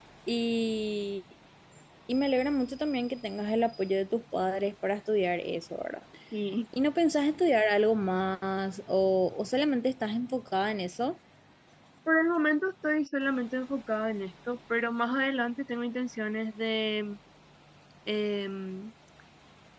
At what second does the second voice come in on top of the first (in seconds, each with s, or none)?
none